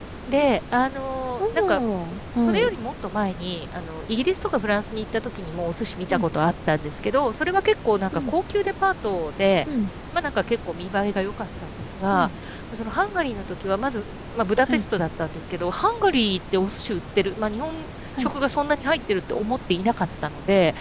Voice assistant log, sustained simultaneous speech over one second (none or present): none